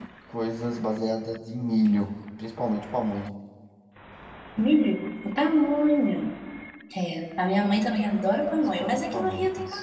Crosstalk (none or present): present